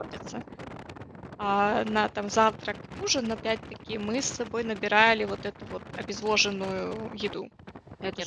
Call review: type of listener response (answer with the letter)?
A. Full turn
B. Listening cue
A